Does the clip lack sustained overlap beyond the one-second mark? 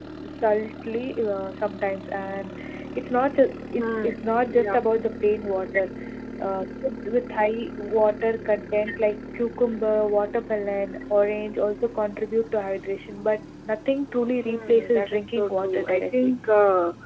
No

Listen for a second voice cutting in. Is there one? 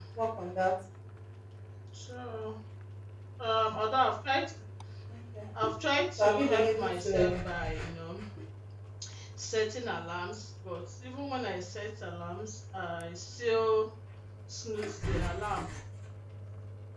Yes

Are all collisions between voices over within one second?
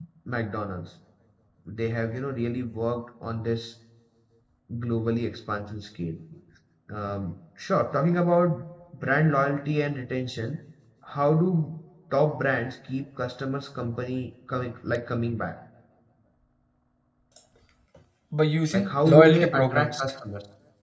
No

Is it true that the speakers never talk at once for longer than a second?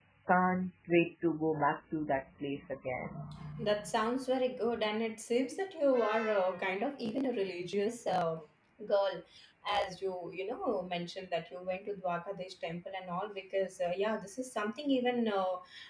Yes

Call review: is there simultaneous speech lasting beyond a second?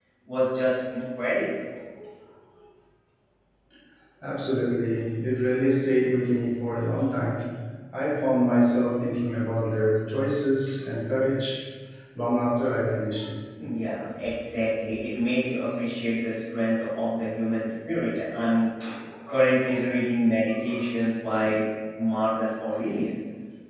No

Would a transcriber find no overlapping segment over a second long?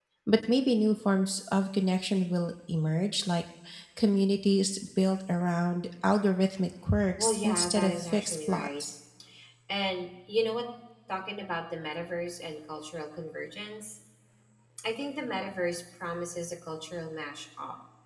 No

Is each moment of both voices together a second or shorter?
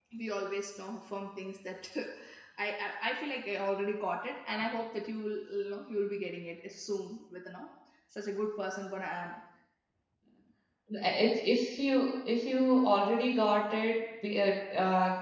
Yes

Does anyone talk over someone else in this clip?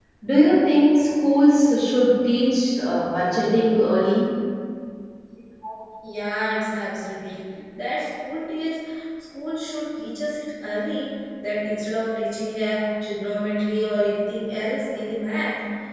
No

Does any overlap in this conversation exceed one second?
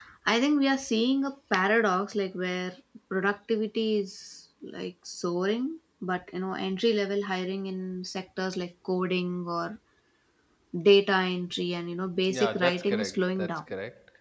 Yes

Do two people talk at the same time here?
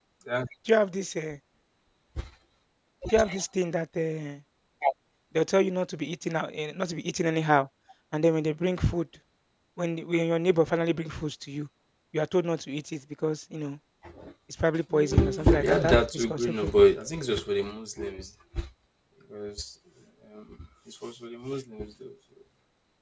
Yes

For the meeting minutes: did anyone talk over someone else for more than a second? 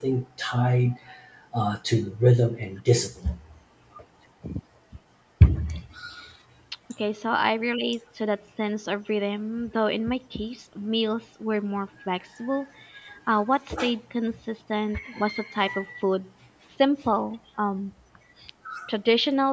No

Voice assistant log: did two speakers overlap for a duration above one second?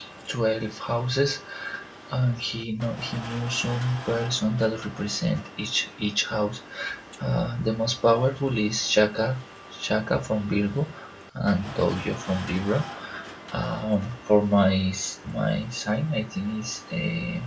No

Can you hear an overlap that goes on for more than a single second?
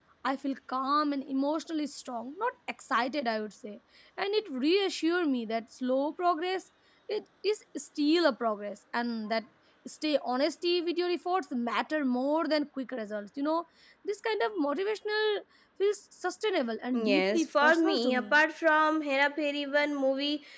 Yes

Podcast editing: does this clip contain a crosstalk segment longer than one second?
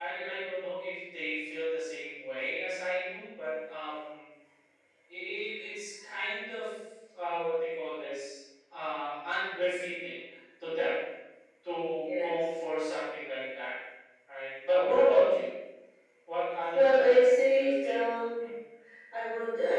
Yes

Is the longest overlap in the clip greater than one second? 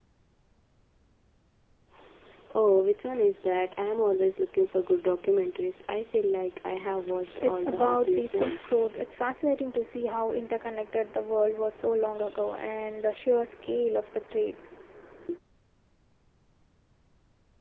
Yes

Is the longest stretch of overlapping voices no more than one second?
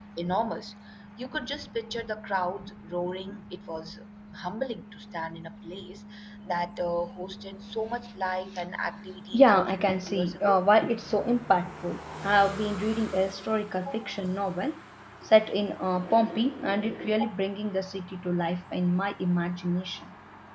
No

